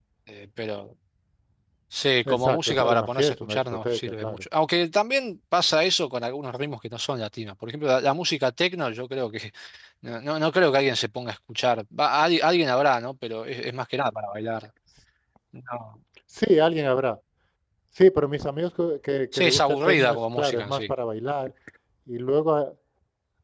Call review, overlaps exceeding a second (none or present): present